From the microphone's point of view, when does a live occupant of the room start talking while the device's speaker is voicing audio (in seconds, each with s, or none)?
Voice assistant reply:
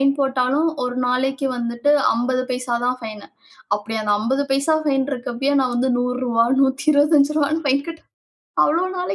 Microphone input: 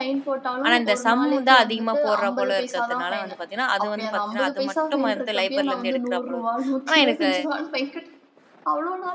0.6 s